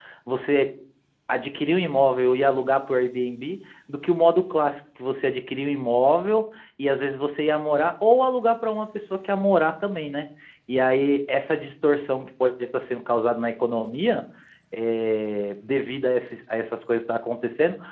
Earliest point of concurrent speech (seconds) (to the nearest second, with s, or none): none